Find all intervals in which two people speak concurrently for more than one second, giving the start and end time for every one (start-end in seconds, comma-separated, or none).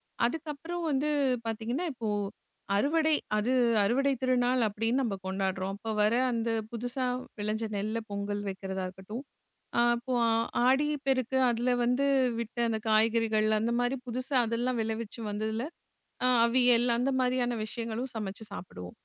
none